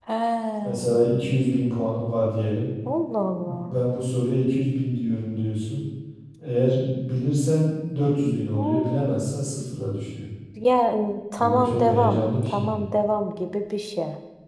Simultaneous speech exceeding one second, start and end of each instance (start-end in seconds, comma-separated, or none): 11.4-12.8